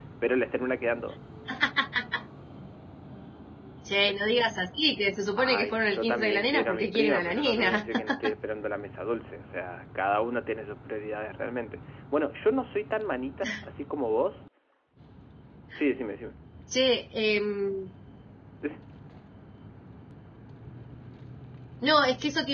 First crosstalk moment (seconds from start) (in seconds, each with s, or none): 5.4 s